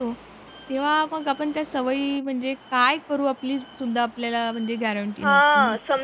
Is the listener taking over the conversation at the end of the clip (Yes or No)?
Yes